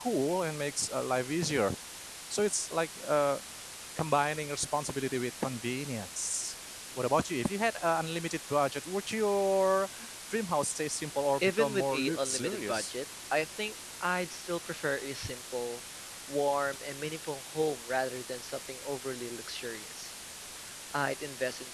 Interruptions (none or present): present